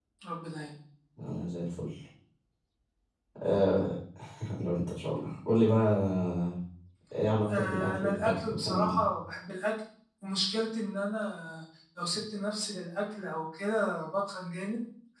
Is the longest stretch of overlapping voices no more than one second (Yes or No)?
No